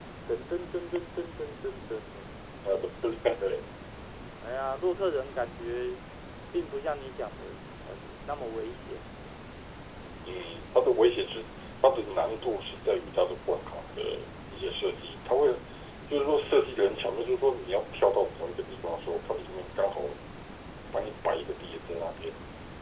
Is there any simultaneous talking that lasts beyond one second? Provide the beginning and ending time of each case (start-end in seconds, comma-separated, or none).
none